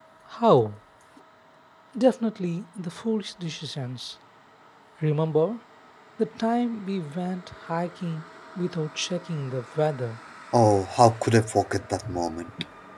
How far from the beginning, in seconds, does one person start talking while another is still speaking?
none

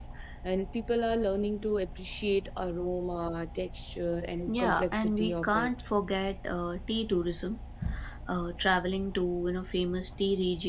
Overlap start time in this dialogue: 4.5 s

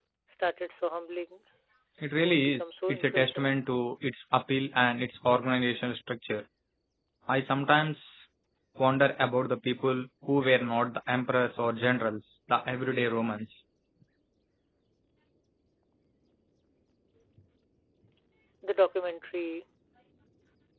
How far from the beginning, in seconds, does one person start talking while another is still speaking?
2.2 s

